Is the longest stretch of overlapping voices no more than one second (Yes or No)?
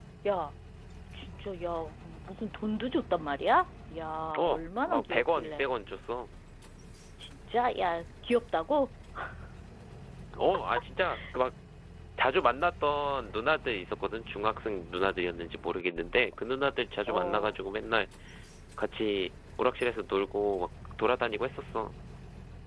No